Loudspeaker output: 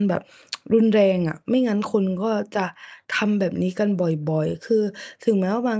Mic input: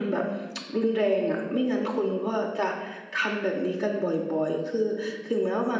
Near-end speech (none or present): none